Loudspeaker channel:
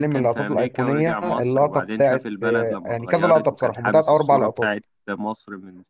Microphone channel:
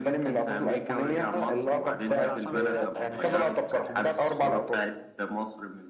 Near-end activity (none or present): present